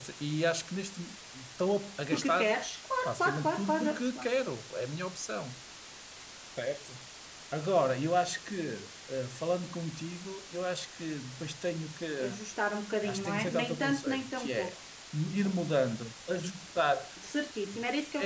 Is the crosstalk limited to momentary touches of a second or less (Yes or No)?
No